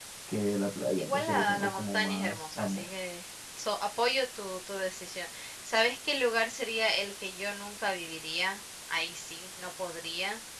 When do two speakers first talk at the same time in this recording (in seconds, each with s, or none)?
1.0 s